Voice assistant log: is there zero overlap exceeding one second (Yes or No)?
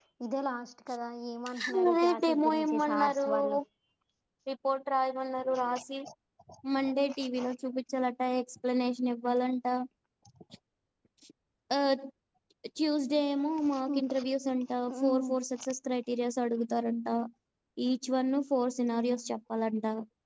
No